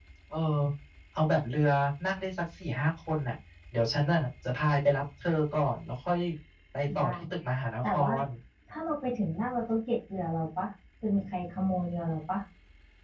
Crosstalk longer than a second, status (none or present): none